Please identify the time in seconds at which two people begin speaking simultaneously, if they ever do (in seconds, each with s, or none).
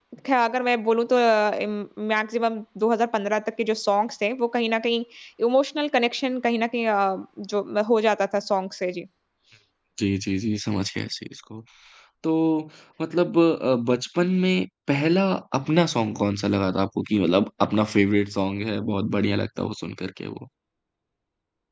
none